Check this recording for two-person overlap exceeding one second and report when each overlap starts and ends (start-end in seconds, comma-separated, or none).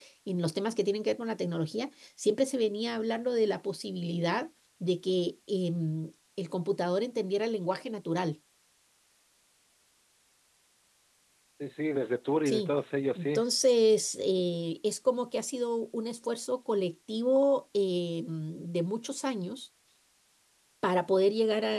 none